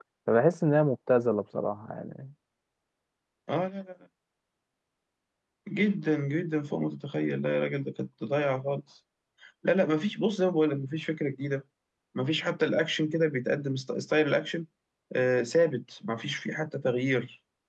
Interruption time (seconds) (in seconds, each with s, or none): none